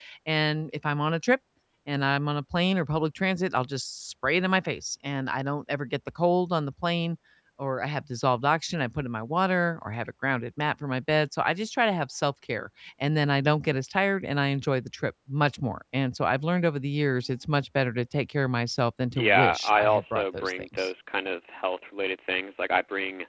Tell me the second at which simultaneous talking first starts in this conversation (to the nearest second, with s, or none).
19 s